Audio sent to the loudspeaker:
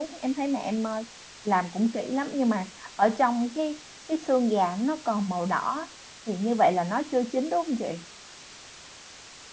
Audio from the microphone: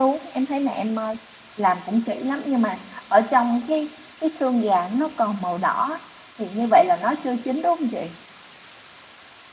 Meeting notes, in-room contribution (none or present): none